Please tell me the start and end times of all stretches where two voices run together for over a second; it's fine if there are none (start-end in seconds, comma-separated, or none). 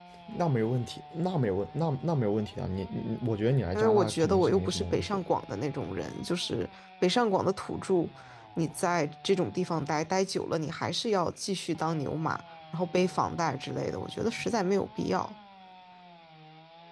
3.7-5.2